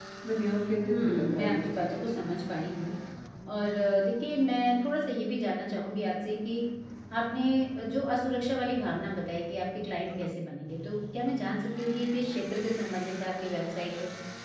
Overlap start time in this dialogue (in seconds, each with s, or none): 0.8 s